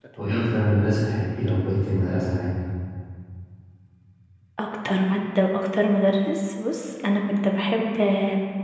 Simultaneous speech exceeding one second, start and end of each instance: none

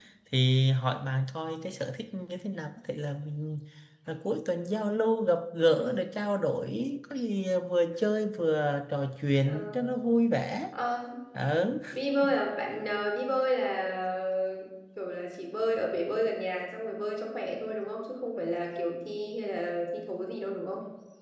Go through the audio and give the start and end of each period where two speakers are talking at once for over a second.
none

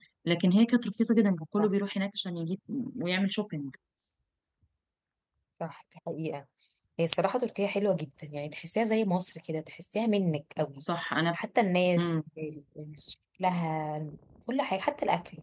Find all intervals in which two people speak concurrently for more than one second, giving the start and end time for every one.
none

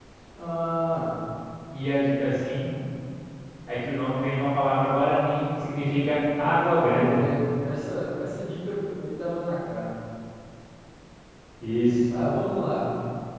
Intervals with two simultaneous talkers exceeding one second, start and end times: none

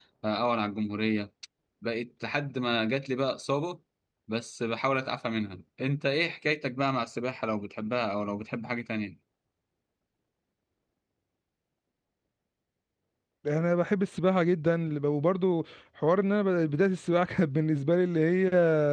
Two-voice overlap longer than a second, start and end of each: none

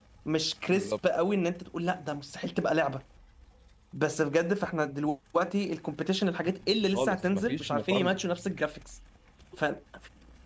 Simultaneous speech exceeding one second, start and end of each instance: 6.9-8.2

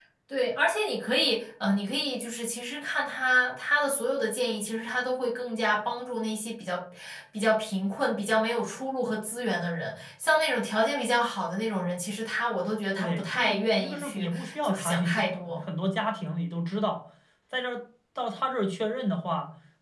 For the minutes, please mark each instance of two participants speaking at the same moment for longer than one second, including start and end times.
13.0-15.6

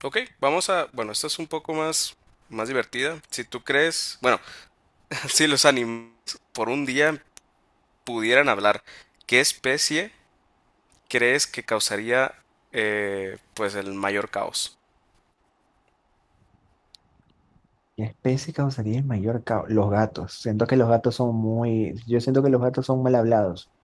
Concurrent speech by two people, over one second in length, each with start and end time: none

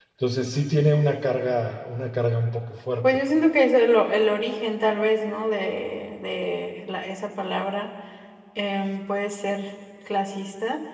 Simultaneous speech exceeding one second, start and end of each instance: none

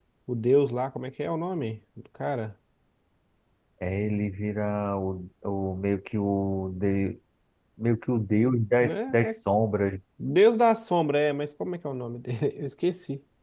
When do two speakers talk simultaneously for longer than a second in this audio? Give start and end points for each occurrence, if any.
none

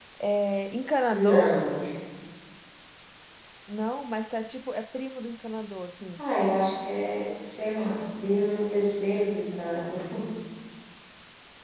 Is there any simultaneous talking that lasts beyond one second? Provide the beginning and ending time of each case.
none

